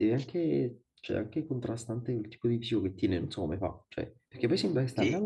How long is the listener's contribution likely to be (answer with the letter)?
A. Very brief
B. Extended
A